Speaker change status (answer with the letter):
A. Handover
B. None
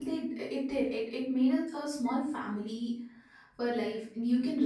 B